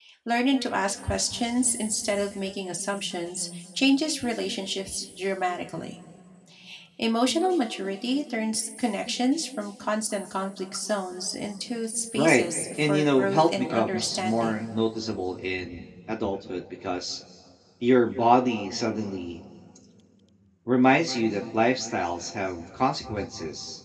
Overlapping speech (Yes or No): Yes